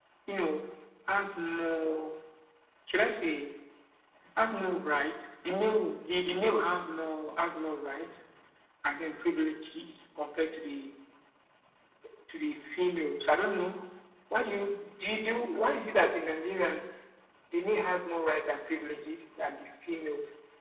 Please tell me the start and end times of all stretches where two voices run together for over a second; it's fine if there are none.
none

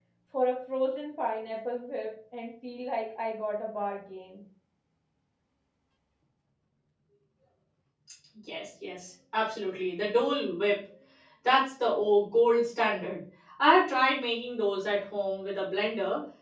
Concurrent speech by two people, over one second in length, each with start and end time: none

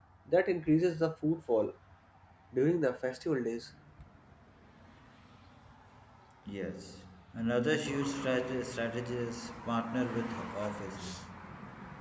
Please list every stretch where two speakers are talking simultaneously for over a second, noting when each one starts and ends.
none

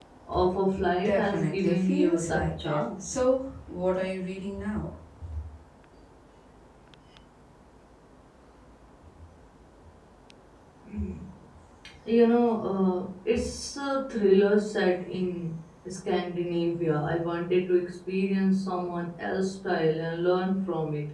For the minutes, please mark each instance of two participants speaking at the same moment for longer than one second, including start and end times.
0.7-3.1

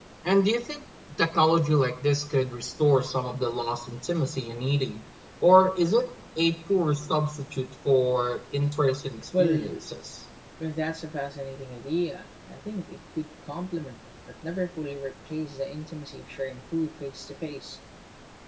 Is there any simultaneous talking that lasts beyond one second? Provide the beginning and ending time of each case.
none

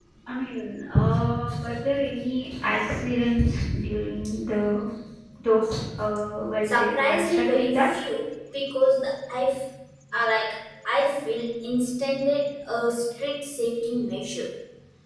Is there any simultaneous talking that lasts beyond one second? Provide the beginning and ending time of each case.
6.6-7.9

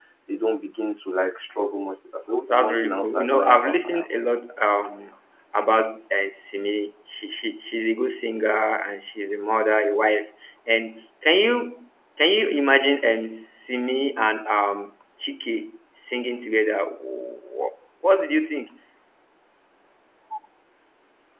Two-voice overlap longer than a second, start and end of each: 2.5-4.2

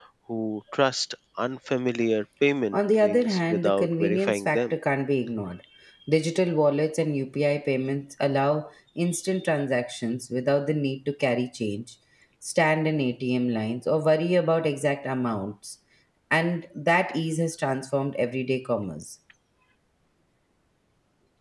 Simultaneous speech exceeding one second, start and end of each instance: 2.7-4.7

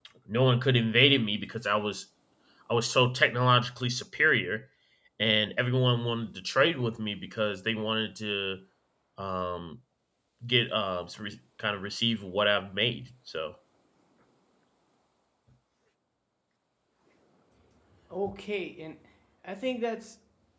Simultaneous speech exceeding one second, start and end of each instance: none

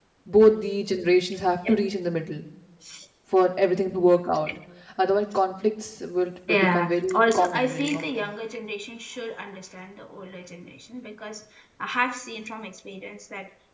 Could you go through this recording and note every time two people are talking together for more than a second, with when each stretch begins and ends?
6.5-8.3

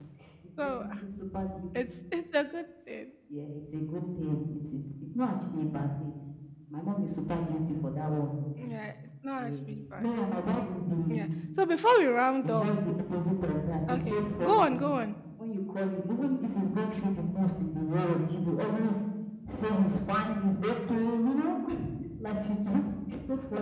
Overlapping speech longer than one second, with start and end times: 13.9-15.1

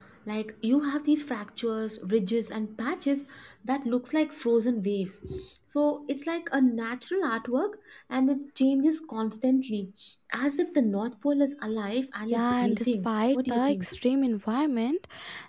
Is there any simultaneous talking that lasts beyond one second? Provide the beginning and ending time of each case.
12.3-13.8

